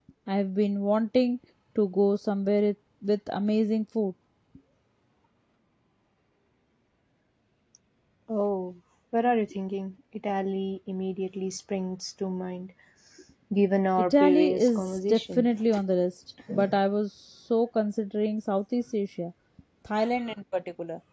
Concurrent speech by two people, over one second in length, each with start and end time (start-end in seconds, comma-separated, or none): 14.0-15.5